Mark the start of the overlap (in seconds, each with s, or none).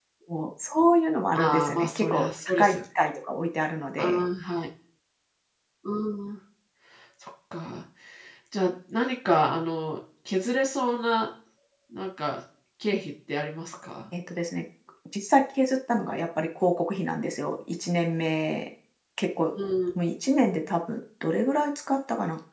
1.4 s